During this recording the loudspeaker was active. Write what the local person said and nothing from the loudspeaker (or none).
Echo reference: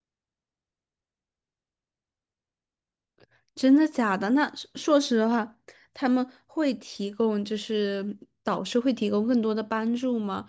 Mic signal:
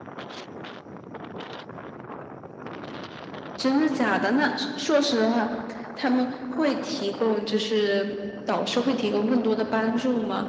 none